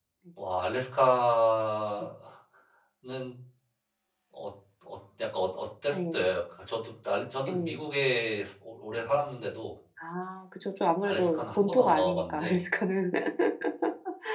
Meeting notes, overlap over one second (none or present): present